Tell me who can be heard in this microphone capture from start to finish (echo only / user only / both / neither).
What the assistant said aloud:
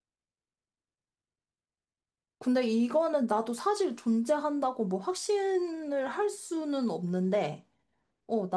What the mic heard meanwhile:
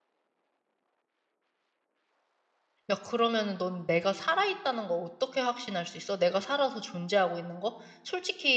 user only